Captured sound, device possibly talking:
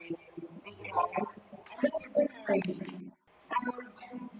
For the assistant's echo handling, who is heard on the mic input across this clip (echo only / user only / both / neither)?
both